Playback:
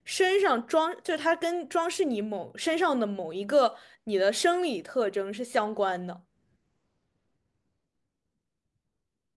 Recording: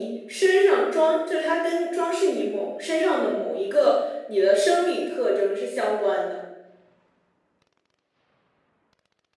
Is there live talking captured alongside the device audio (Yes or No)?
No